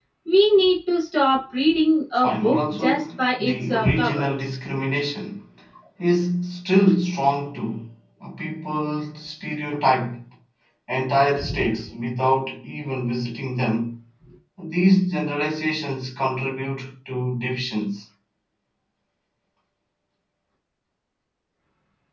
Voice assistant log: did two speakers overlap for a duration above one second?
Yes, from 2.2 s

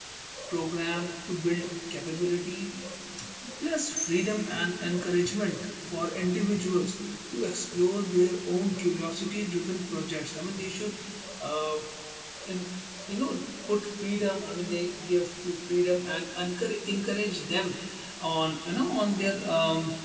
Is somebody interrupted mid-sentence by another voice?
No

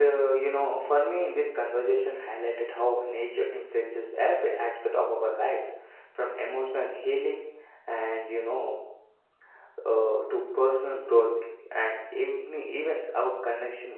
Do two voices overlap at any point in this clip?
No

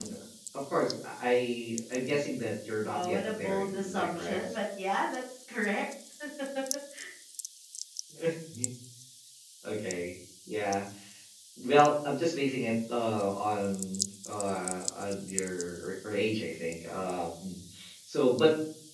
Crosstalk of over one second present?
Yes, from 2.8 s

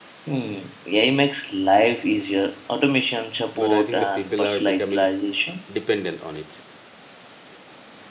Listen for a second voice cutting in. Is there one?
Yes, from 3.6 s

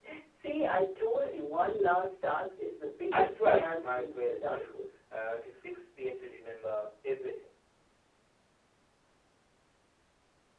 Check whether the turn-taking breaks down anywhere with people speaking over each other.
Yes, from 3.1 s

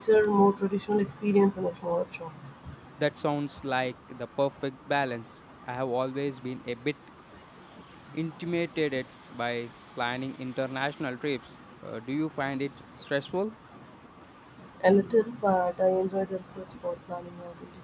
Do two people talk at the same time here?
No

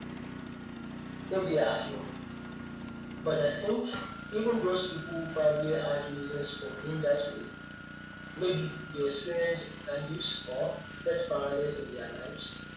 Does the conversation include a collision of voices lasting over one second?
No

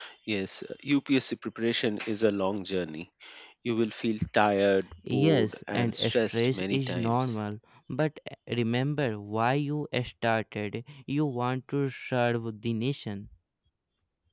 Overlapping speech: Yes, from 4.9 s

